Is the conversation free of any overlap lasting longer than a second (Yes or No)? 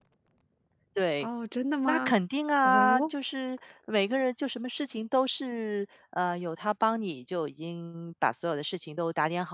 Yes